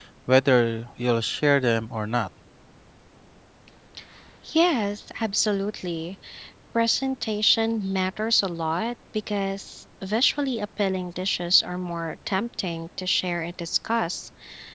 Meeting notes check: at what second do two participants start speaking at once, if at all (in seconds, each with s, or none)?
none